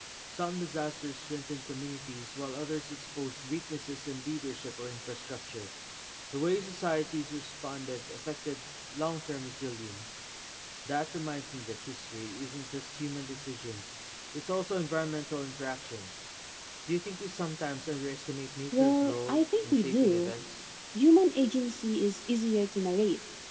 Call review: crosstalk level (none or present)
present